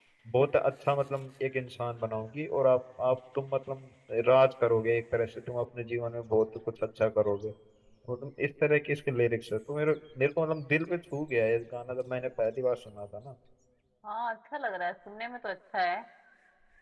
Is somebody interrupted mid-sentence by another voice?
No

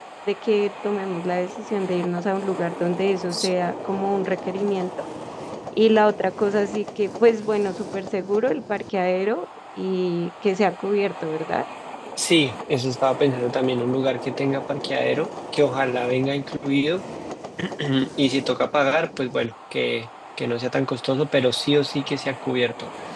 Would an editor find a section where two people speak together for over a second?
No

